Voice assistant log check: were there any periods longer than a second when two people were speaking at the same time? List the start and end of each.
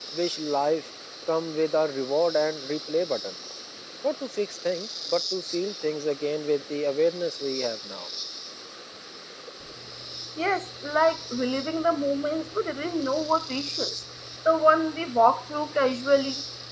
none

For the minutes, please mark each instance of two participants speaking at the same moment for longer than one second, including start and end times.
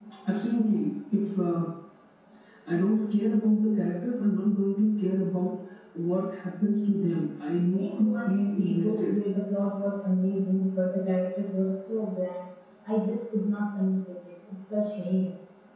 7.7-9.2

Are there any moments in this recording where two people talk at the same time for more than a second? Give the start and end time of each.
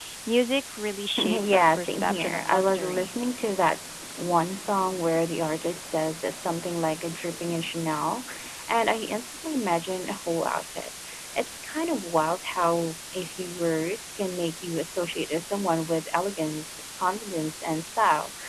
1.2-3.1

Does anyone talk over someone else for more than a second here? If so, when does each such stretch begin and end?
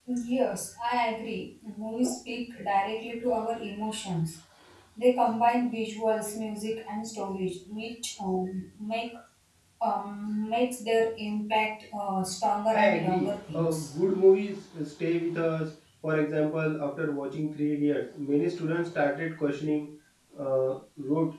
12.7-13.9

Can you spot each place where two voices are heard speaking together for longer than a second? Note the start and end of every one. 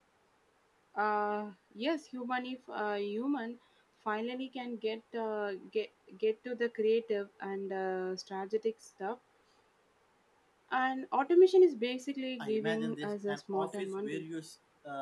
12.4-14.2

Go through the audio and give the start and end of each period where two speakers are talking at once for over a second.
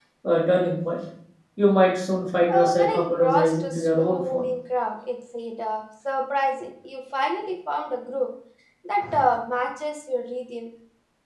2.5-4.5

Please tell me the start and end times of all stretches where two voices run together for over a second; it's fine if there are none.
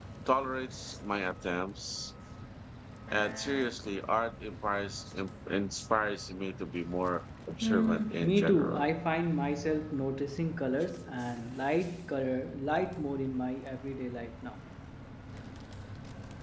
7.6-8.8

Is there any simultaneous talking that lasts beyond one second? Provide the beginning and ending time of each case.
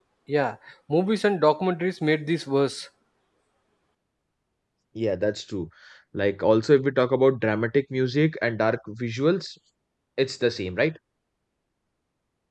none

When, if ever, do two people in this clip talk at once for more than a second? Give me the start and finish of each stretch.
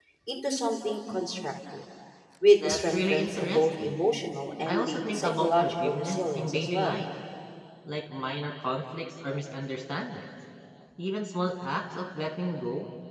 2.5-4.0, 4.7-7.0

